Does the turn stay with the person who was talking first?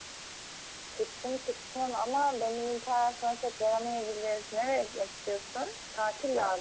Yes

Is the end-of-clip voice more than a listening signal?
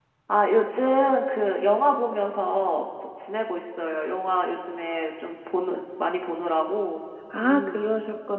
Yes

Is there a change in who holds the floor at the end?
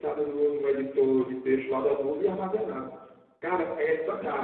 No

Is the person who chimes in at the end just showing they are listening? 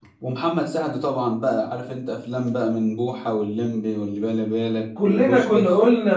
No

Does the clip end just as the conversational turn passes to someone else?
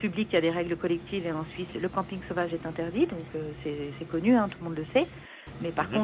No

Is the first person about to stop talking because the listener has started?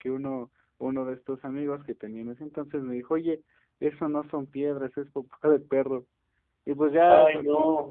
No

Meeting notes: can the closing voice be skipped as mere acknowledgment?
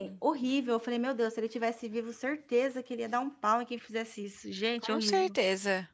No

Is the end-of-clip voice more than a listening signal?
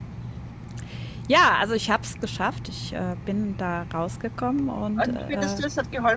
Yes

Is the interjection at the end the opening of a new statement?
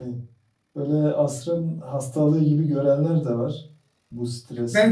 Yes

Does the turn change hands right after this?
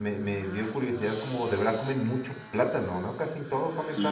Yes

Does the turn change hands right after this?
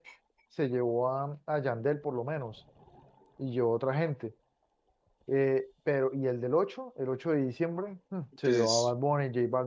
No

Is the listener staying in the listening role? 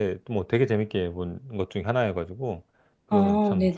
No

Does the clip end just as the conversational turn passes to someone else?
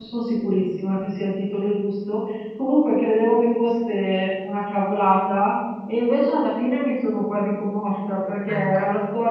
No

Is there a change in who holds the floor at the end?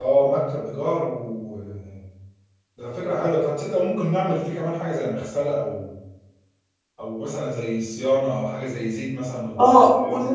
Yes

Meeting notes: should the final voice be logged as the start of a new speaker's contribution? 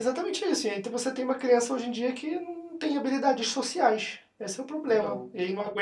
No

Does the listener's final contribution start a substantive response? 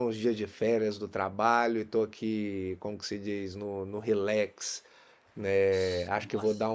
No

